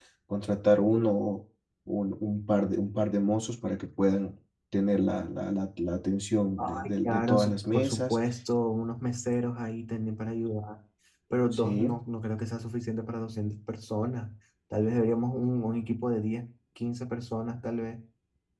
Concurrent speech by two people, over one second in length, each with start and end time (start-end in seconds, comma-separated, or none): 6.6-8.2